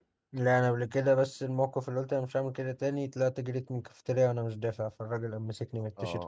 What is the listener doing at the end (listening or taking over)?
taking over